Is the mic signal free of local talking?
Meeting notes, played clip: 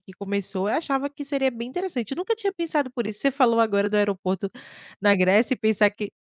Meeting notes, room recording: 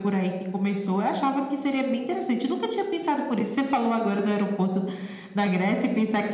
Yes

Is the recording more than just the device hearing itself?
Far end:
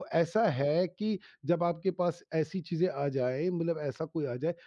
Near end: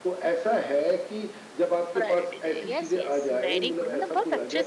Yes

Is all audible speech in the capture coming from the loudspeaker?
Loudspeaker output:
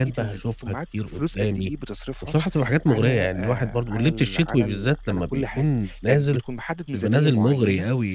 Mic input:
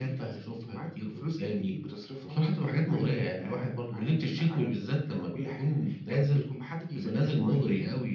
Yes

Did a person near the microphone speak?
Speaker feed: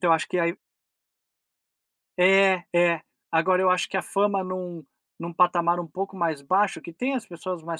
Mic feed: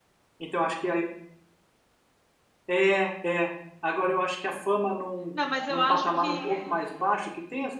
Yes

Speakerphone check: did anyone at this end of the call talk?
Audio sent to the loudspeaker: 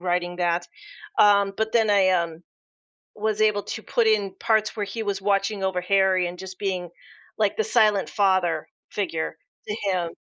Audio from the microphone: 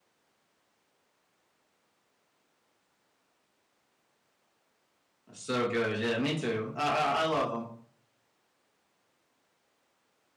Yes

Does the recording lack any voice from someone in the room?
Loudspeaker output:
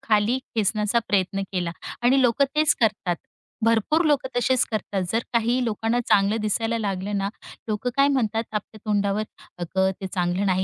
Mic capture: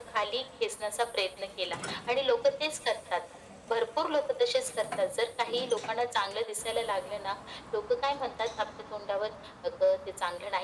Yes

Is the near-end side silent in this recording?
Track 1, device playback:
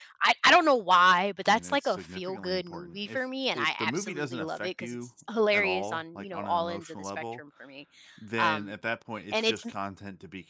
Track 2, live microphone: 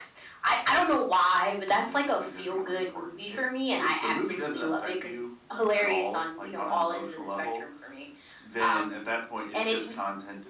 Yes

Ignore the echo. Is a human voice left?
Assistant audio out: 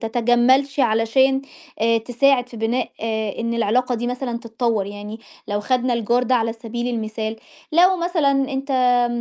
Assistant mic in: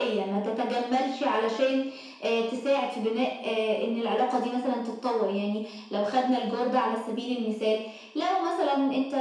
No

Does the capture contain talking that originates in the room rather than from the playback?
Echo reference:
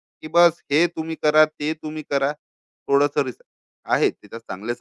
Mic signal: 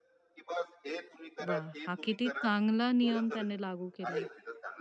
Yes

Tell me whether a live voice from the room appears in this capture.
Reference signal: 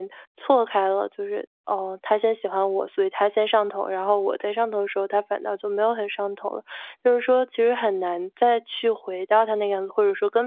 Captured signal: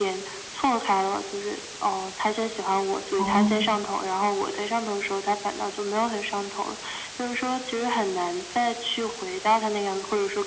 Yes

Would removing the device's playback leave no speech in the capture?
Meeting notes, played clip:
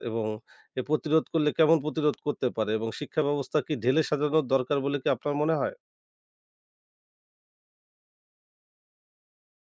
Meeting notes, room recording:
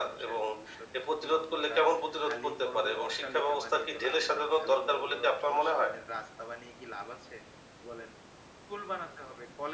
No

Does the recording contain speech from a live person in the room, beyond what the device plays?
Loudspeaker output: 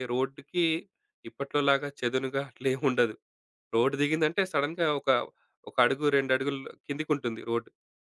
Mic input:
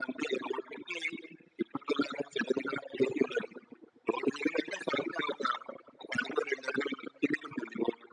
No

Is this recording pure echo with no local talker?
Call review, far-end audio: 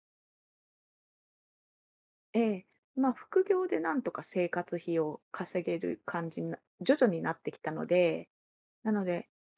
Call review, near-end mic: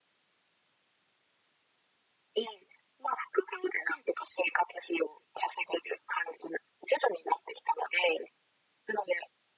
Yes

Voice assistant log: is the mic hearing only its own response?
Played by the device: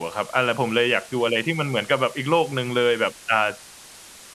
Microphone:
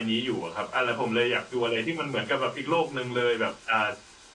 Yes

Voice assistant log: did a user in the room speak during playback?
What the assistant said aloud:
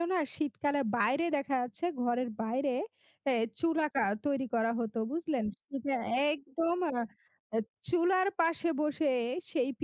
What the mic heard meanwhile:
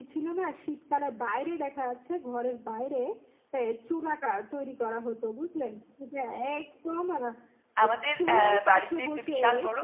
Yes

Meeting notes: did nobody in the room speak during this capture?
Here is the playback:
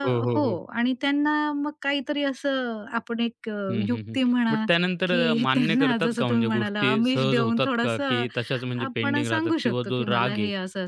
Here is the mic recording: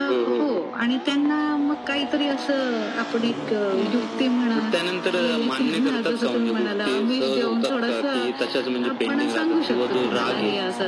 Yes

